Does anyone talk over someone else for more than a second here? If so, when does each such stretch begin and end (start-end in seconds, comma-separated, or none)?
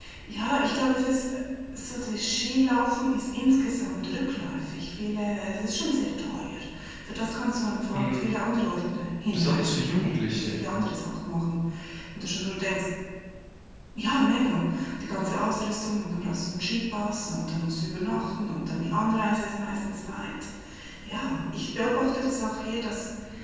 9.3-10.6